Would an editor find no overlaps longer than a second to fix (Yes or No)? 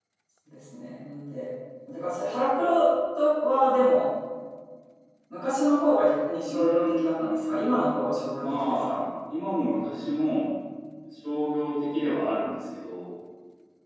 No